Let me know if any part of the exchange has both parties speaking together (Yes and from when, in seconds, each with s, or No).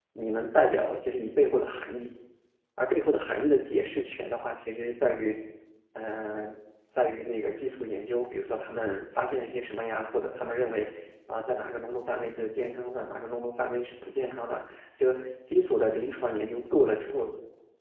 No